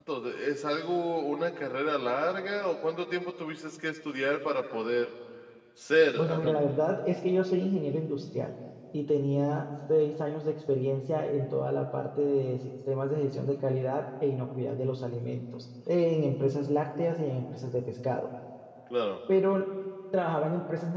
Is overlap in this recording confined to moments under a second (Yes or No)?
Yes